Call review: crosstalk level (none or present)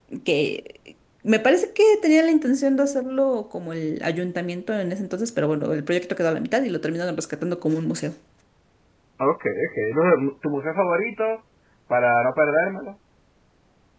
none